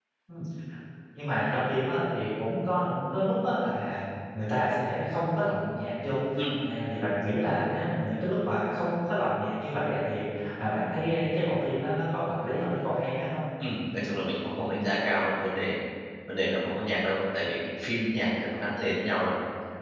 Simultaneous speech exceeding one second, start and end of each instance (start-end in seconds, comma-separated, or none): none